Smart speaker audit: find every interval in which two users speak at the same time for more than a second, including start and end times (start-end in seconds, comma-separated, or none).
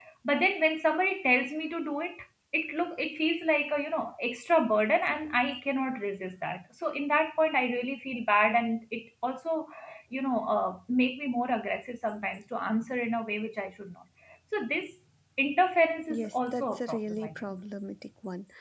16.1-17.4